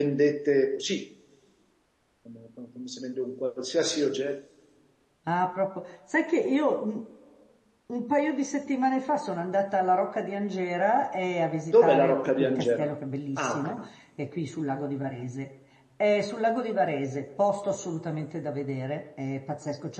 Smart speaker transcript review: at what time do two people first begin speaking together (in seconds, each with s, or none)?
11.7 s